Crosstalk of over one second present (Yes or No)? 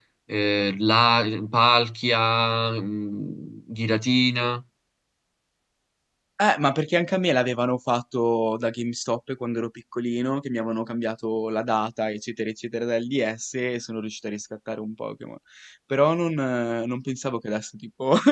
No